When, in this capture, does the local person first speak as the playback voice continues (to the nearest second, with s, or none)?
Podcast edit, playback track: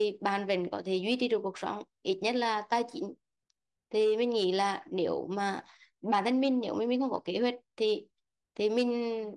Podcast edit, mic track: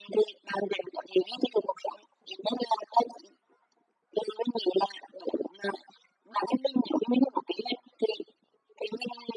none